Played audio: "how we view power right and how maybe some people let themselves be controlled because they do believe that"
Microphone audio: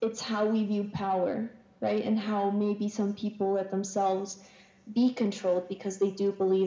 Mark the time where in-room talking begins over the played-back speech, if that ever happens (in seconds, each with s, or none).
none